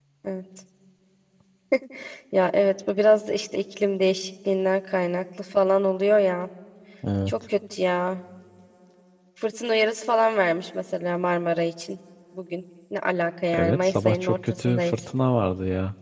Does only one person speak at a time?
No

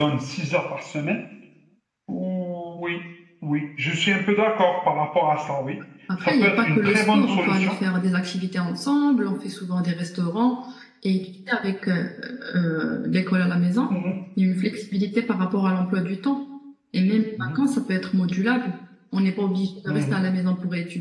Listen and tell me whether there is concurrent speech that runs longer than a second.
Yes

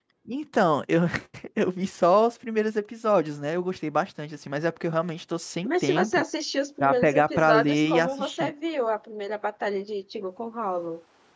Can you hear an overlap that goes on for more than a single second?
Yes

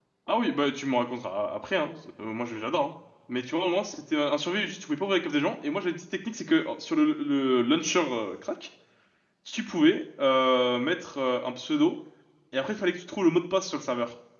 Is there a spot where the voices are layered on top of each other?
No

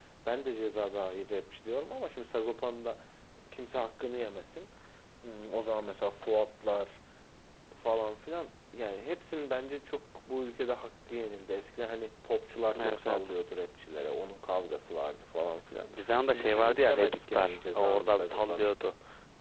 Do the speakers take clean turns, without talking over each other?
No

